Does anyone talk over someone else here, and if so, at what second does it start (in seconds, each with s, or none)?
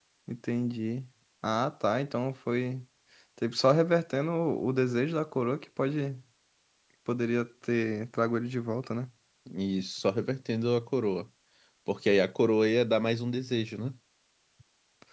none